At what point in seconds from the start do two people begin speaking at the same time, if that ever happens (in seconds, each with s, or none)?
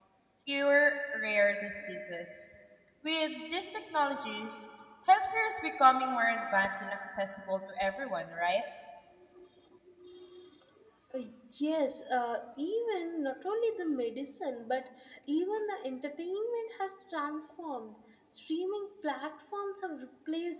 none